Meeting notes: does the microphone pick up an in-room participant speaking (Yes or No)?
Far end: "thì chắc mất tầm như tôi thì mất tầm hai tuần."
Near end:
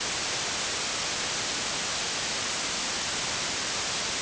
No